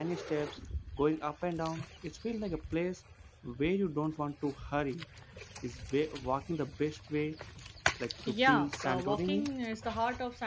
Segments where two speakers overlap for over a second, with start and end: 8.3-9.5

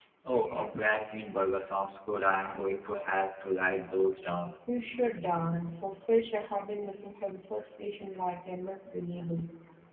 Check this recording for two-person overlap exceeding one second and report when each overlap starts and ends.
none

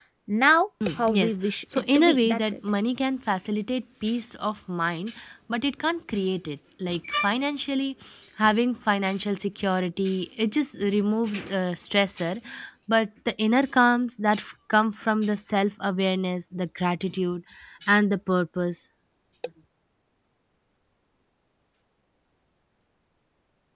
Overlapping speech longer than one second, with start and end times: 1.0-2.4

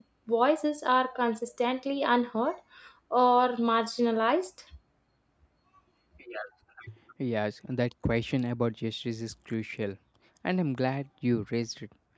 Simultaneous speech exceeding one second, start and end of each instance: none

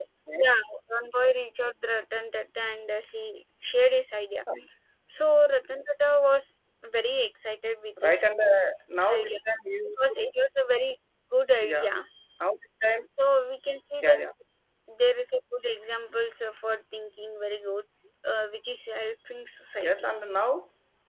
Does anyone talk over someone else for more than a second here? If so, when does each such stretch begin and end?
none

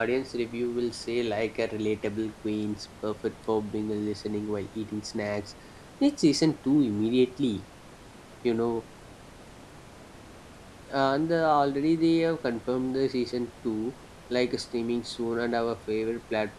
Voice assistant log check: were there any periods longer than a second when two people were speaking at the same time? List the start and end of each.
none

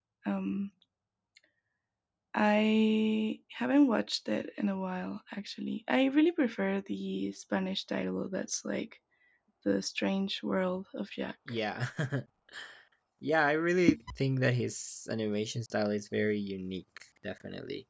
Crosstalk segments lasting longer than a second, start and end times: none

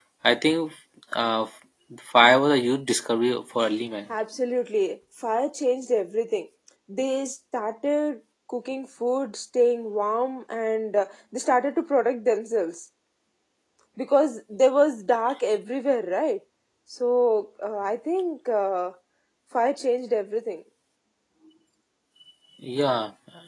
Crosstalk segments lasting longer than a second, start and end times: none

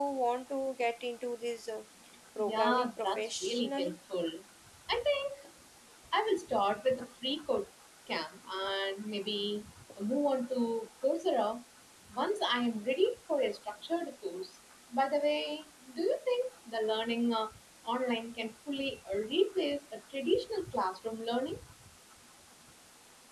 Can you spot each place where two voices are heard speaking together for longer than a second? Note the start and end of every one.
2.4-4.0

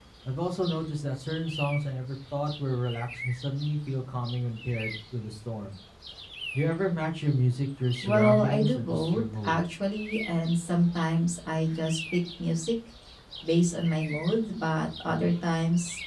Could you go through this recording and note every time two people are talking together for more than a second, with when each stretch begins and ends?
8.0-9.6

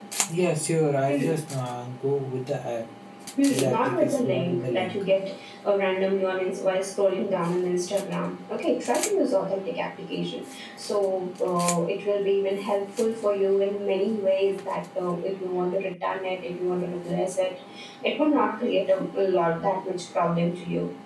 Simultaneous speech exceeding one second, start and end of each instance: 3.5-5.0

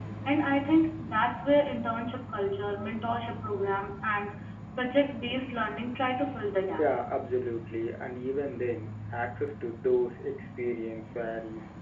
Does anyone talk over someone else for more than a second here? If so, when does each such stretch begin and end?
none

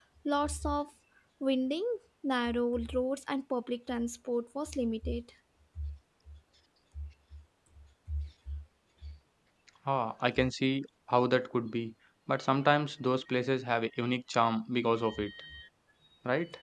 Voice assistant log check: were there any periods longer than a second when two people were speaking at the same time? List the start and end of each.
none

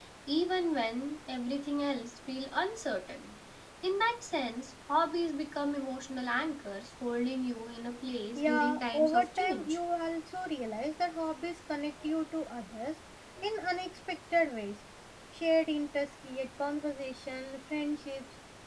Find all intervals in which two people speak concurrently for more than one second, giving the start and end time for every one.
8.3-9.8

